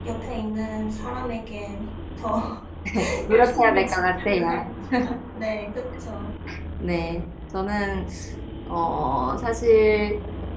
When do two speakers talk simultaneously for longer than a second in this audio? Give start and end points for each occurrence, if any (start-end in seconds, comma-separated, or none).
3.3-4.6